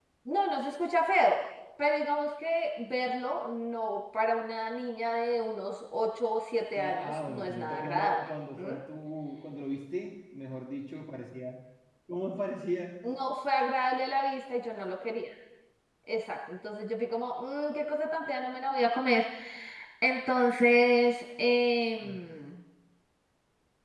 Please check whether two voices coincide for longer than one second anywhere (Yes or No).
Yes